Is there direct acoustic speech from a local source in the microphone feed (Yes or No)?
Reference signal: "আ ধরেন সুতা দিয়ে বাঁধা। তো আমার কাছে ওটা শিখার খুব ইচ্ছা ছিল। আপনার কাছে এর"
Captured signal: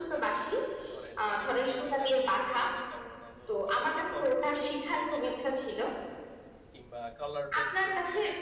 Yes